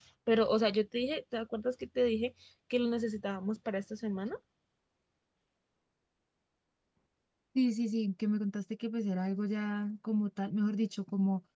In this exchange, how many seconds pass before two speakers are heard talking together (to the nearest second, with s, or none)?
none